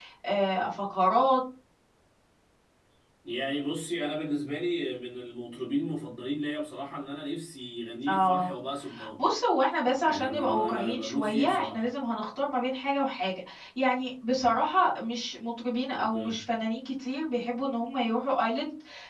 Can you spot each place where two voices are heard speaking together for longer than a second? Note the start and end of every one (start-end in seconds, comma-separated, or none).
10.0-11.9